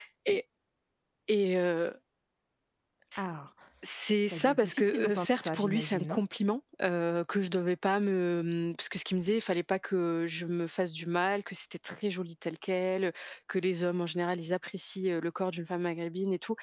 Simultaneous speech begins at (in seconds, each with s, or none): 4.3 s